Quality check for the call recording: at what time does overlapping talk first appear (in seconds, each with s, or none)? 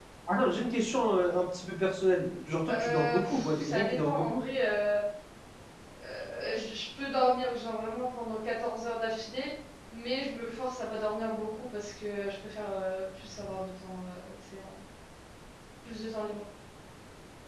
2.6 s